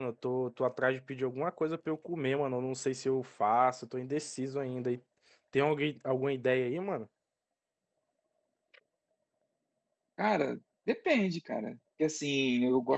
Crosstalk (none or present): none